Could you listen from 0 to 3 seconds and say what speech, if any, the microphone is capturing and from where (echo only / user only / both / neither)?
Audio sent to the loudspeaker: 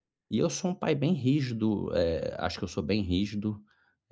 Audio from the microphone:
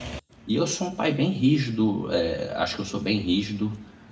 echo only